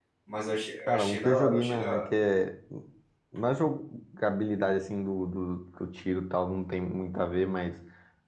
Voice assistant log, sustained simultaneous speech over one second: present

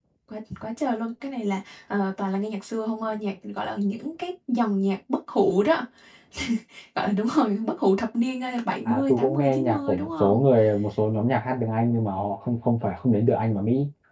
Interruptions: present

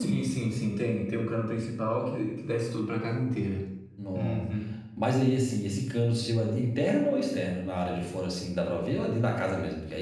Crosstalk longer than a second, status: none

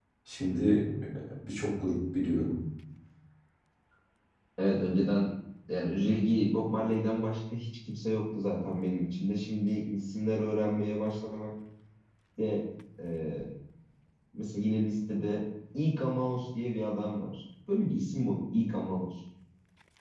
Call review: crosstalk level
none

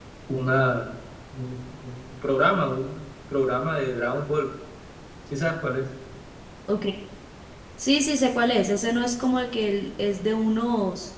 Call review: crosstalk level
none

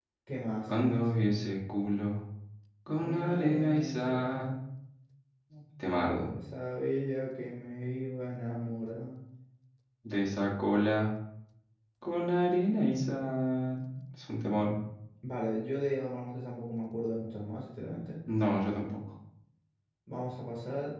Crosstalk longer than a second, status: present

